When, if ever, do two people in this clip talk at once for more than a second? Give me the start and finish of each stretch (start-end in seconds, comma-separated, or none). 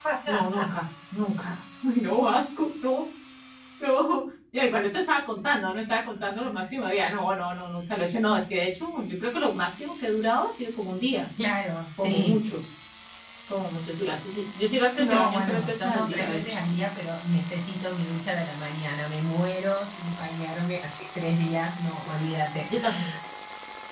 15.0-16.6